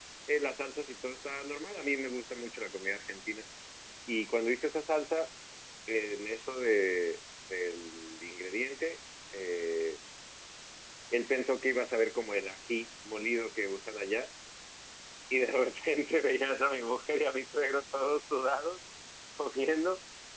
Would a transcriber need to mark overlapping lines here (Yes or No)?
No